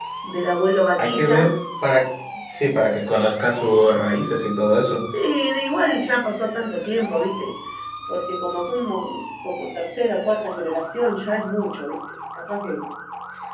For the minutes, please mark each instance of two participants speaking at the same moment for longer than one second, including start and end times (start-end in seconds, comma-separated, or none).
none